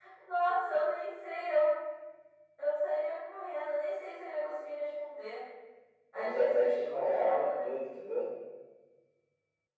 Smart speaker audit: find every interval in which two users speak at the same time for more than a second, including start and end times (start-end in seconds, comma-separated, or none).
6.2-7.7